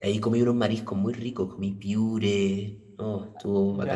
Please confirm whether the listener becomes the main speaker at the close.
Yes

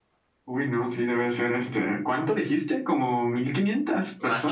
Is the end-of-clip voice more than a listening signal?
Yes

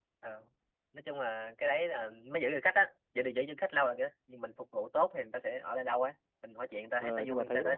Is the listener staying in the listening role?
No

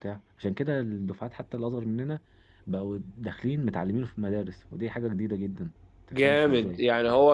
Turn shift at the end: Yes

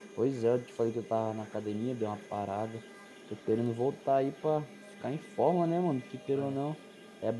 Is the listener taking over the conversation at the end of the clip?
No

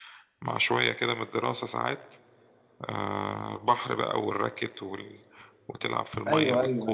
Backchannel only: No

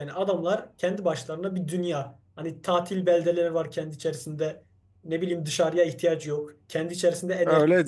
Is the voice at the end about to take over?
Yes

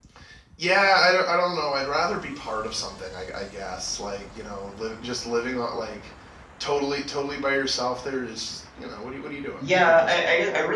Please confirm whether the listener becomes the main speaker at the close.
Yes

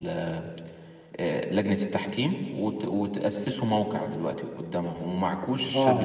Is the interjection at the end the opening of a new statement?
Yes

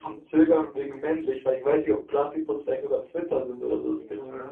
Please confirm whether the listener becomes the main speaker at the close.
Yes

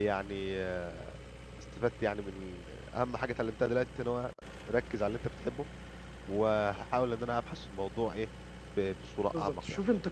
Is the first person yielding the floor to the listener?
Yes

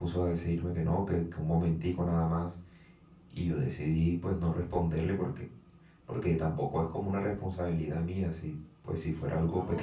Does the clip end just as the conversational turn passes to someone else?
Yes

